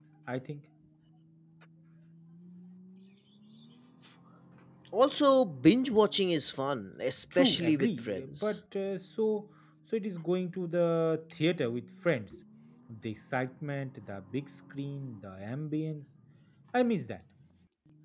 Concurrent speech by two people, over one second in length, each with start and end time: 7.4-8.6

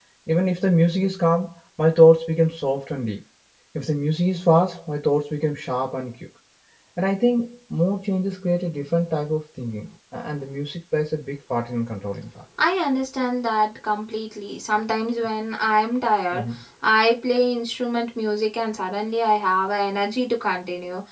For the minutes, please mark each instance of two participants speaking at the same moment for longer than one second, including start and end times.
none

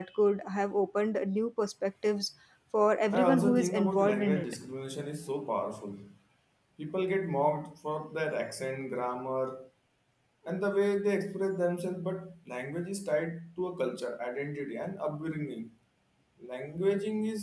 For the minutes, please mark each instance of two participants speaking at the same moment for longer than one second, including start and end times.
3.1-4.5

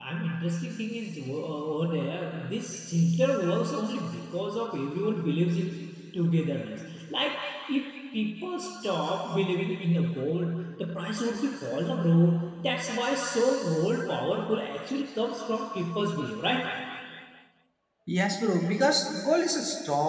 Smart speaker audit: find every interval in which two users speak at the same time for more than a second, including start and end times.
none

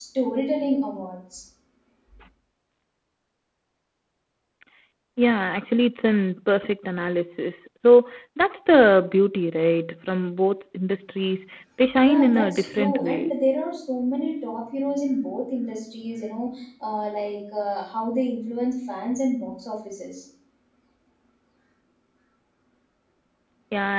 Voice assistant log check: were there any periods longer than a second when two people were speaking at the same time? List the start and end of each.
12.0-13.3

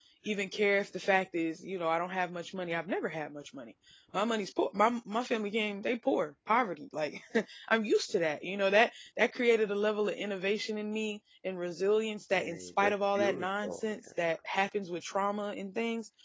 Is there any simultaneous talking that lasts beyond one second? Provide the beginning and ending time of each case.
12.4-14.0

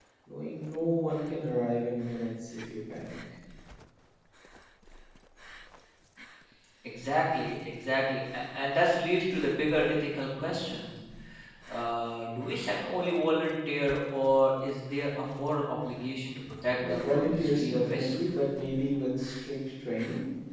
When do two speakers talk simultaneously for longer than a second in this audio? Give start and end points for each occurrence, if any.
16.9-18.1

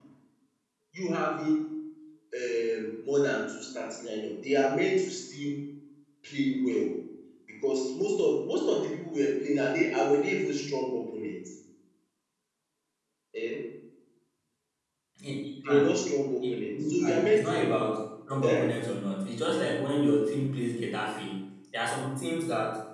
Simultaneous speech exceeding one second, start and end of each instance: 16.4-17.7

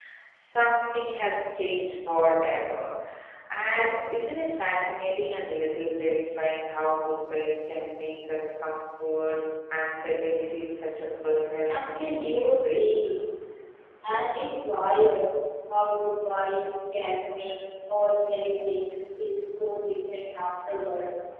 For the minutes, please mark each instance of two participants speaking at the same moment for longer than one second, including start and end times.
11.7-12.9

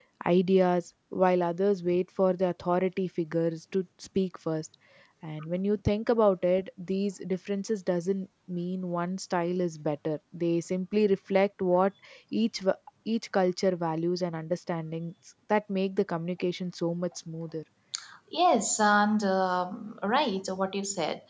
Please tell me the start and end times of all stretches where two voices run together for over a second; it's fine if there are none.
none

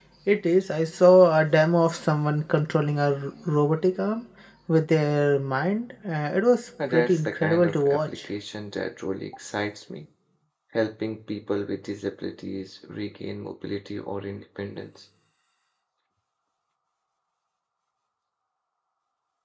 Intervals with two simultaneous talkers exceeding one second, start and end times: 6.9-8.3

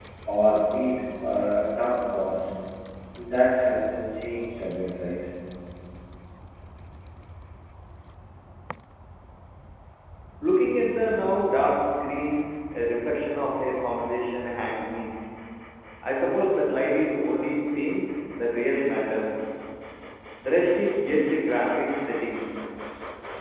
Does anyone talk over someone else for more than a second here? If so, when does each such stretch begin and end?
none

